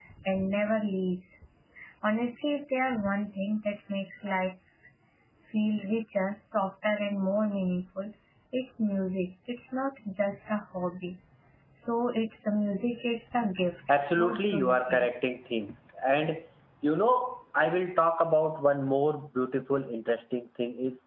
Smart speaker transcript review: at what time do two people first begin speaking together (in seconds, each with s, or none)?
13.9 s